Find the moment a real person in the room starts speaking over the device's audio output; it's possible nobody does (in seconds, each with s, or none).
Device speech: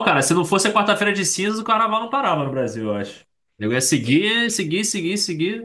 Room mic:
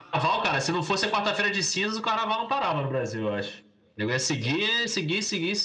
none